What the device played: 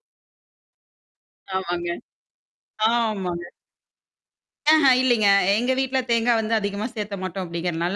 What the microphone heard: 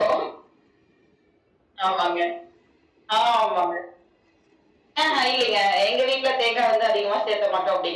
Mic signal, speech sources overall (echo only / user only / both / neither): echo only